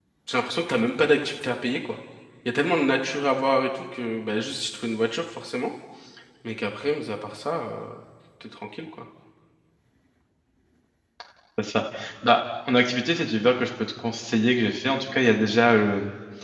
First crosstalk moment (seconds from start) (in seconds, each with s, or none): none